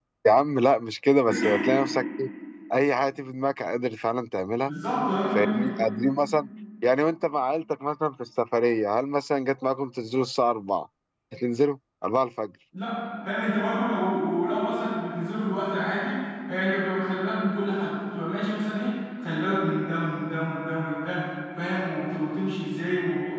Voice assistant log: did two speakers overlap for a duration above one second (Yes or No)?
No